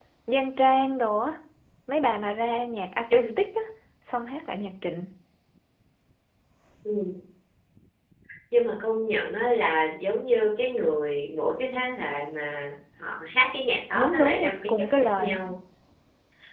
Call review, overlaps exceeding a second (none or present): present